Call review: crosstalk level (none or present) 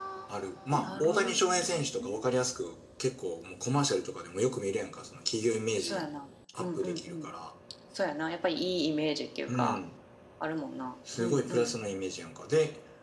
present